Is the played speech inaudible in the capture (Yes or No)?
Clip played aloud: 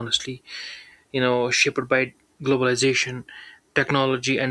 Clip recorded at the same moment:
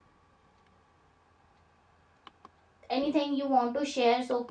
Yes